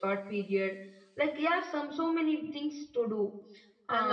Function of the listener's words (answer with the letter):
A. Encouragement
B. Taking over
B